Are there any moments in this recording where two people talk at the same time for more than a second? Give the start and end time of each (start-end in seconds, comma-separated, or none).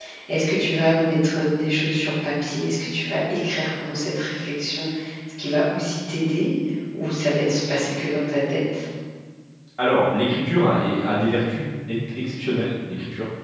none